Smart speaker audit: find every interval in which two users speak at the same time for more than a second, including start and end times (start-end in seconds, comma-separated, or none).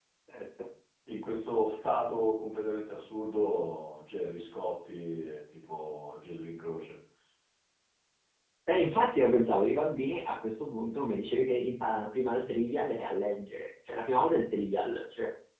none